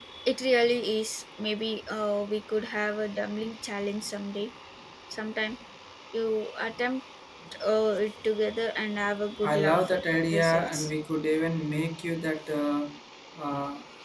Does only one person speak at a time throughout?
No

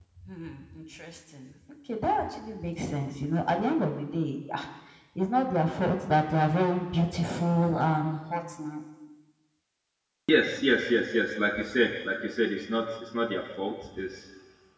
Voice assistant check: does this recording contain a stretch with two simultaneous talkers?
No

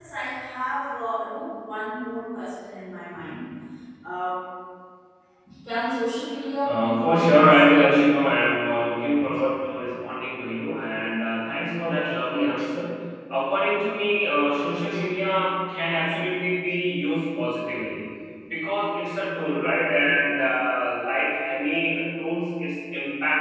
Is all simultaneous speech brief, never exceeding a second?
No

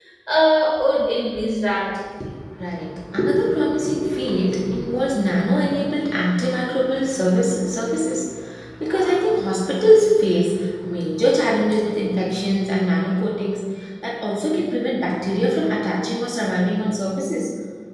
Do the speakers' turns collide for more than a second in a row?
No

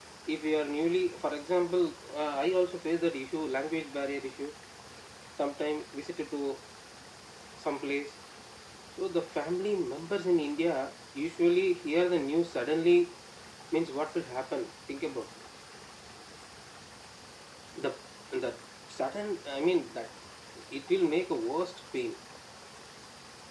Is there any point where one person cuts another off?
No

